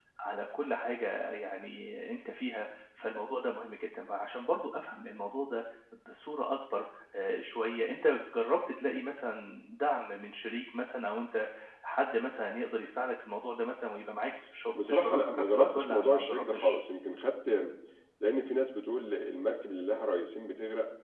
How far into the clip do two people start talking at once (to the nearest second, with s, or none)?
15 s